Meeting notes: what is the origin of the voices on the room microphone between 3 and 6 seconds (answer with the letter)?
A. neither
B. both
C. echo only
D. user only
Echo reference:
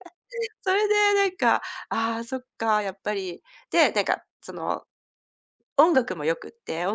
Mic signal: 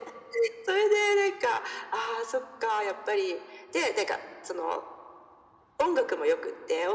C